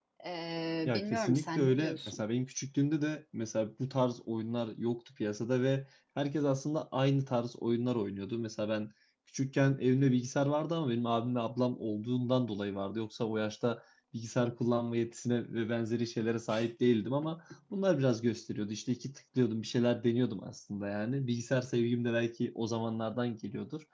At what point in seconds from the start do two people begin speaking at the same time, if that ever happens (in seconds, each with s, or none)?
0.8 s